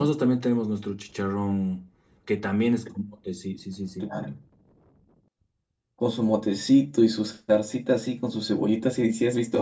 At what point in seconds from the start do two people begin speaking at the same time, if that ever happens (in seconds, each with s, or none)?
none